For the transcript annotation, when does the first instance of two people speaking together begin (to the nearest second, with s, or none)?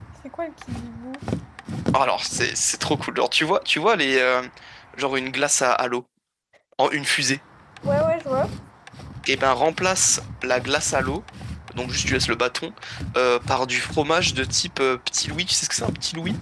none